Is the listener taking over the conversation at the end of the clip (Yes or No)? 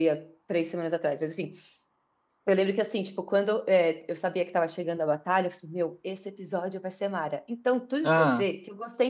No